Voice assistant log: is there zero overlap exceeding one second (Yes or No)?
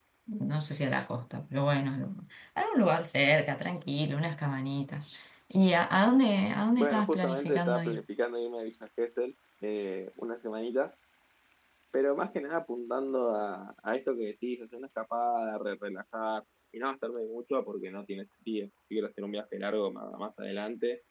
No